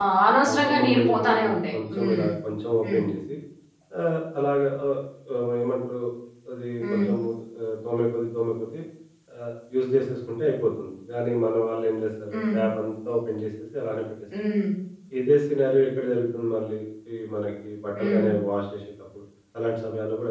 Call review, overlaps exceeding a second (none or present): present